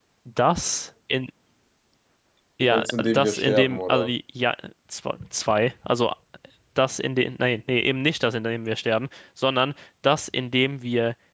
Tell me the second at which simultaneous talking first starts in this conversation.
2.7 s

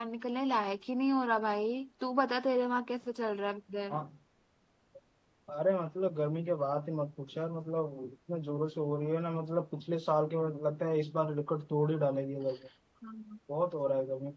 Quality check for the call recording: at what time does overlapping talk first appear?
none

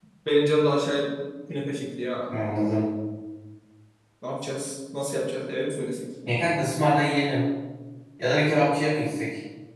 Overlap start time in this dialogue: none

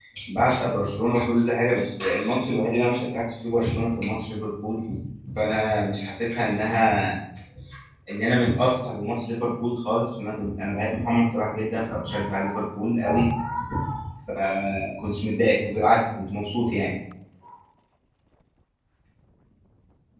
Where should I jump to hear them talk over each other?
none

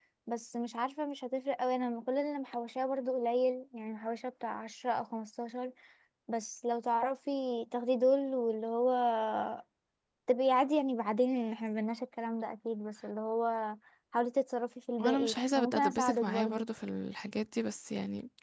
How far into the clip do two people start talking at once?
15.0 s

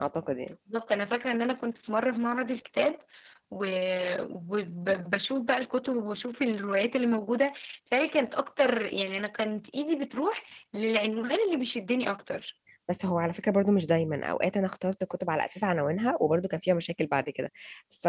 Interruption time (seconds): none

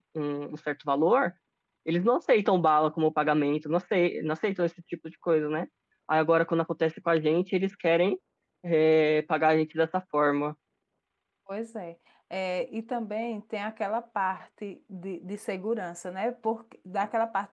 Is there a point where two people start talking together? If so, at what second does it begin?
none

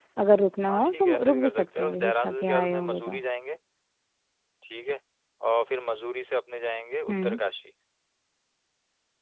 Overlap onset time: 0.7 s

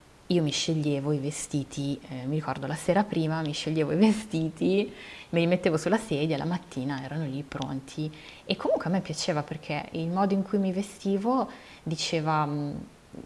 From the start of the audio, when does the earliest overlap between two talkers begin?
none

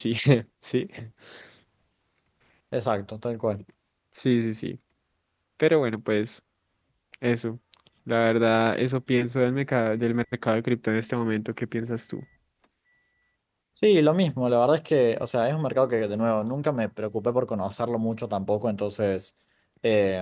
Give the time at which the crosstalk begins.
none

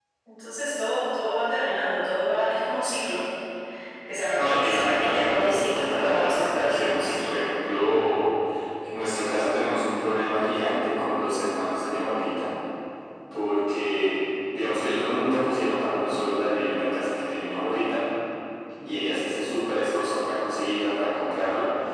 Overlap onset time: 4.3 s

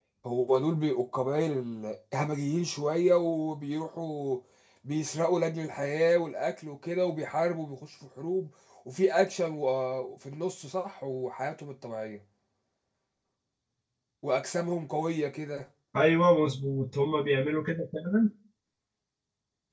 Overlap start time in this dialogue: none

